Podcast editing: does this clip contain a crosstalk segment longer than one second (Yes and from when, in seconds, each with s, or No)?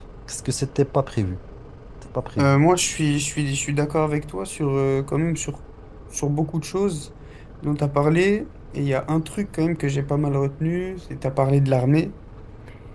No